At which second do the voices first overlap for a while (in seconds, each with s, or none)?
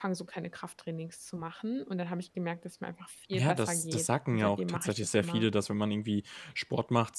3.3 s